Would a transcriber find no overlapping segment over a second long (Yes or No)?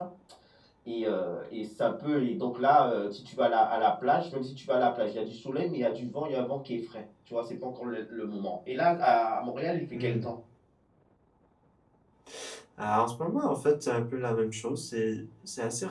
Yes